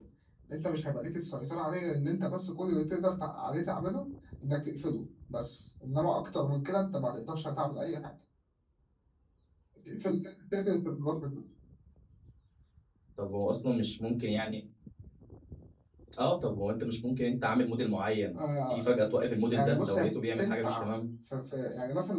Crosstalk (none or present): present